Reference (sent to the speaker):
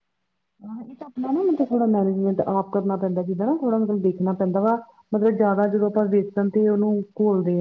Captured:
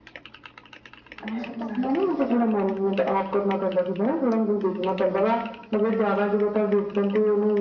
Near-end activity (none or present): present